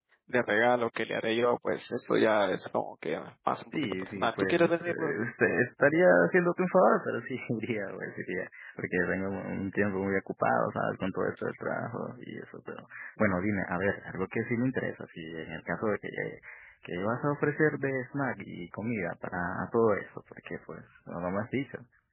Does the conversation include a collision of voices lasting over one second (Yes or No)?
Yes